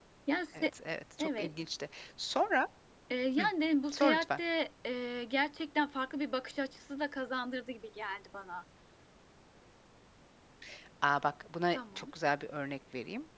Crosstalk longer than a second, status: none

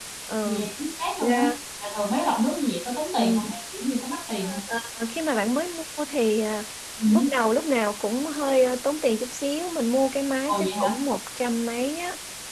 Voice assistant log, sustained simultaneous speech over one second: none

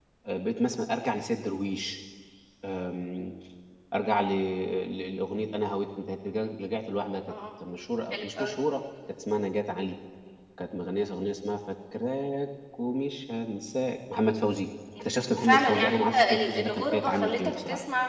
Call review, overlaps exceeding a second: present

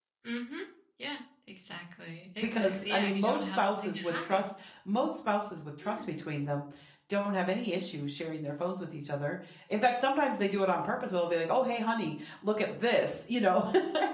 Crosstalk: present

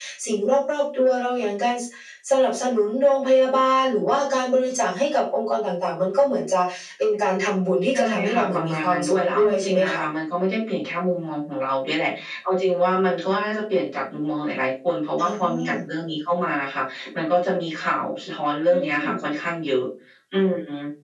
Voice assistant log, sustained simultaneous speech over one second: present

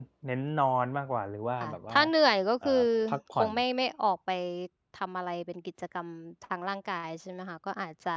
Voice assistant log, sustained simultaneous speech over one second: none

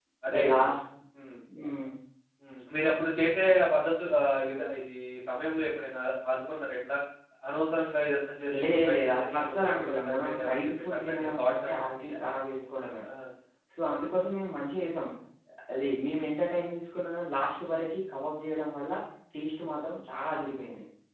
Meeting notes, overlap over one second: present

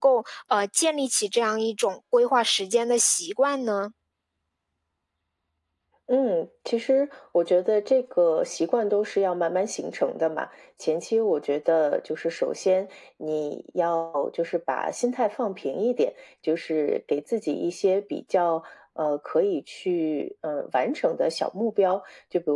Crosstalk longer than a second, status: none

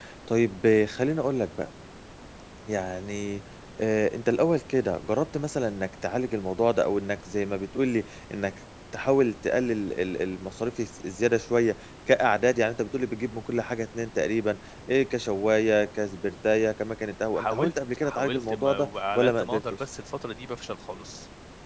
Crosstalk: present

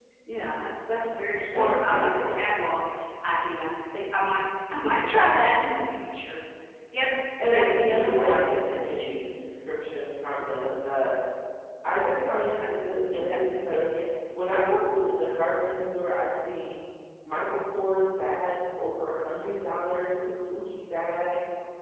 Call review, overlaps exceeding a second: present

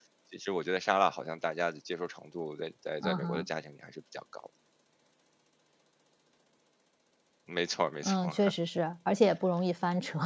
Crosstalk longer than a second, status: none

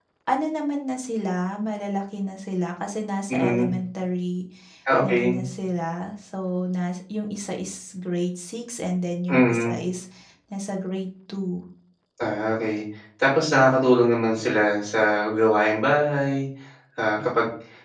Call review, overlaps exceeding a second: none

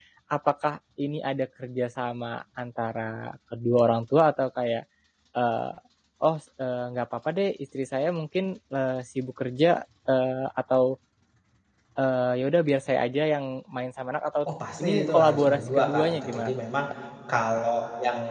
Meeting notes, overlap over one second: present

